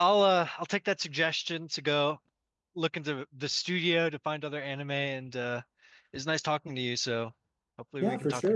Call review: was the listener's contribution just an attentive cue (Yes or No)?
No